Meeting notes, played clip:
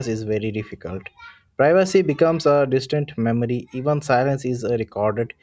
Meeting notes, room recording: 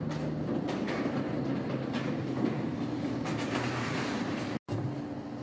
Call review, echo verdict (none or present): none